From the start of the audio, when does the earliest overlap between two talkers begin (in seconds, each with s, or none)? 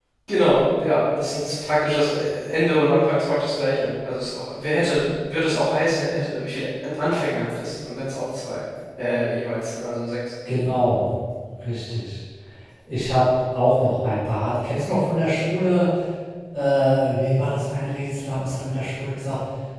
none